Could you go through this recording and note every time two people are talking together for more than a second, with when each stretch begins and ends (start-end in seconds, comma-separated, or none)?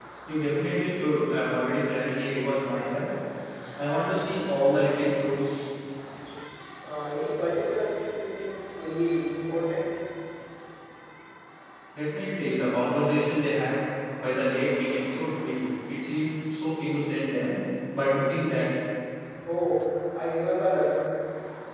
none